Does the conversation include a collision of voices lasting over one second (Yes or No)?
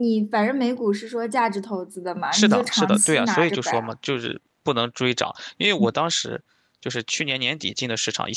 Yes